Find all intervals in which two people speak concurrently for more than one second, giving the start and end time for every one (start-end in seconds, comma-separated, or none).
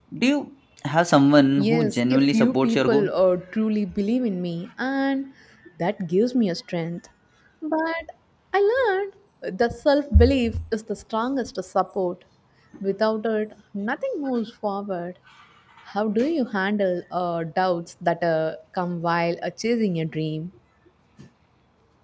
1.6-3.1